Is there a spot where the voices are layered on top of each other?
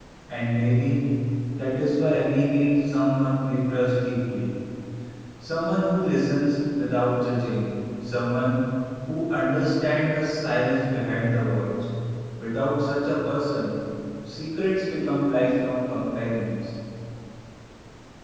No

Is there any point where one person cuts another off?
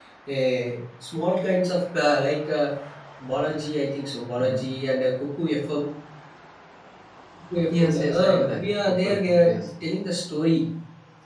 Yes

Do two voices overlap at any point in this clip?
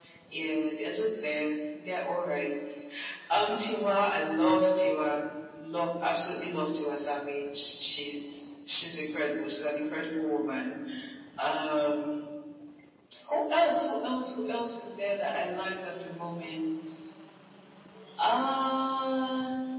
No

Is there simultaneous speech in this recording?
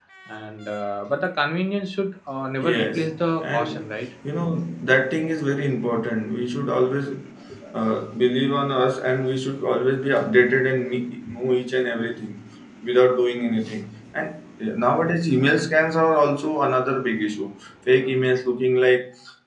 Yes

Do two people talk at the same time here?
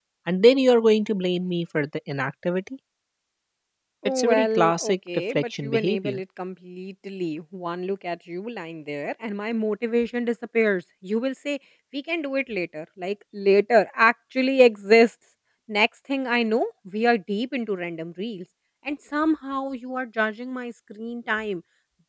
Yes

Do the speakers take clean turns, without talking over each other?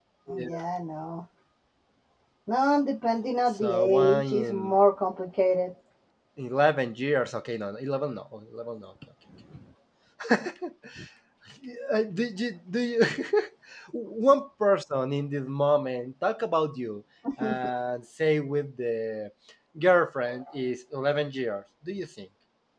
No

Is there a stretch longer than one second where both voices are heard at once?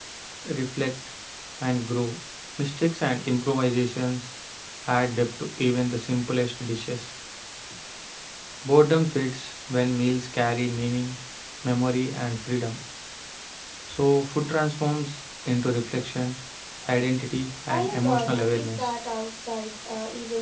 Yes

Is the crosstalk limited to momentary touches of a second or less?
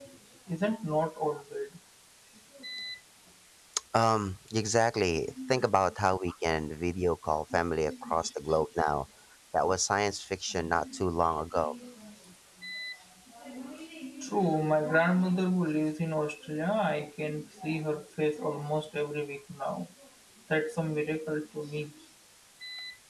Yes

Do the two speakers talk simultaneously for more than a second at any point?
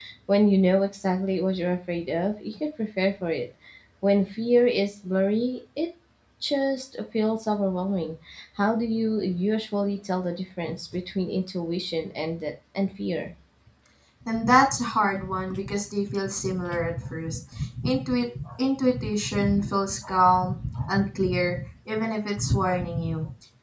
No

